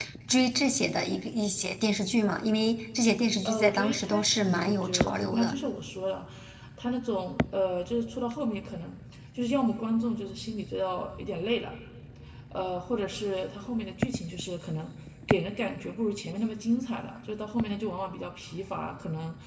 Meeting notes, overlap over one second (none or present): present